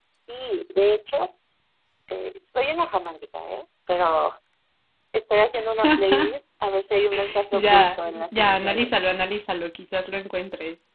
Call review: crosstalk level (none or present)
present